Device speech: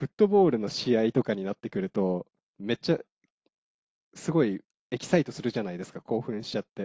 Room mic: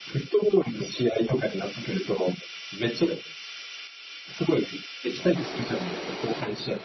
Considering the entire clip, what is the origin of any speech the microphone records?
echo only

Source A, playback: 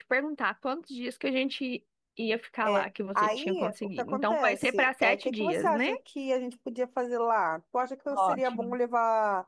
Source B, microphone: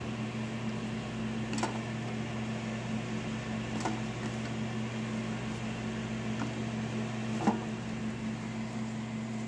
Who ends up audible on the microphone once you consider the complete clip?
neither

